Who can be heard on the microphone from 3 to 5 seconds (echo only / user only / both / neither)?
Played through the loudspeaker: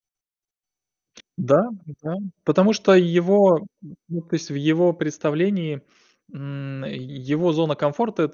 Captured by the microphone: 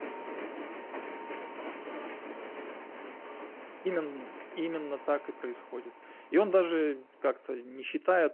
user only